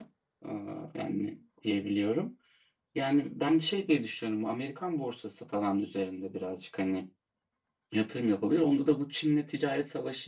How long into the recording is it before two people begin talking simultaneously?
none

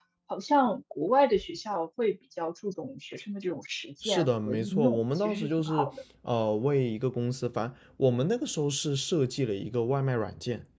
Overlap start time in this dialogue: 4.0 s

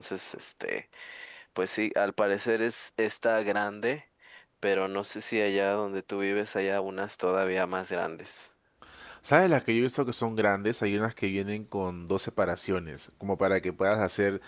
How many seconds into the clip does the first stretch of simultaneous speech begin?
none

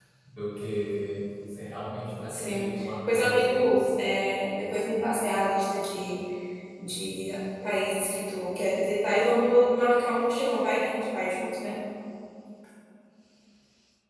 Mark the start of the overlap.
2.3 s

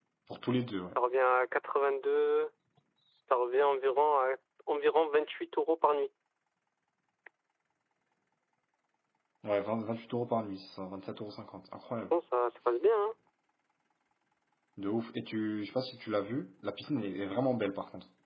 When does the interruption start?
none

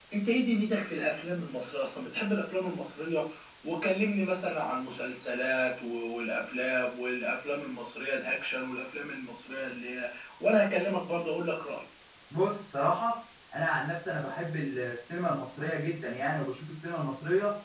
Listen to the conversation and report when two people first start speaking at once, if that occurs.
none

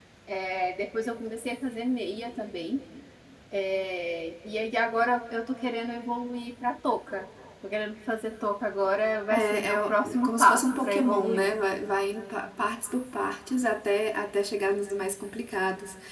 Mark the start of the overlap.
9.3 s

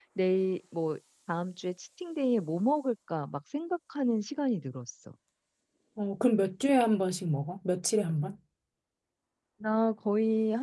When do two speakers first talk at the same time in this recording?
none

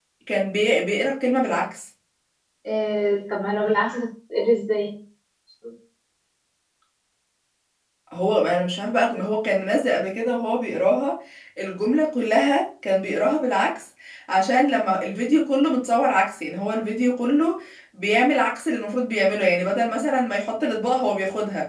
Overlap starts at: none

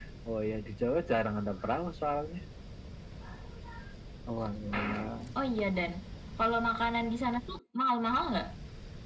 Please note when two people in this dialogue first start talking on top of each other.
none

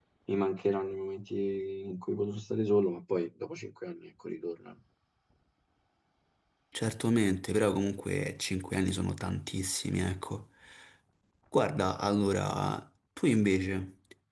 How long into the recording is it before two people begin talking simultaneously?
none

